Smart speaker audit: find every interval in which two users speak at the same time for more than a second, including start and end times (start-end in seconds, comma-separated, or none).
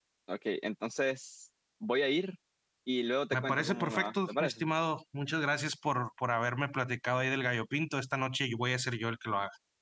3.3-4.6